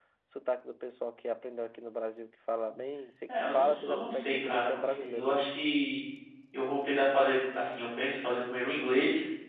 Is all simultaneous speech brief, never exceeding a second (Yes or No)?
No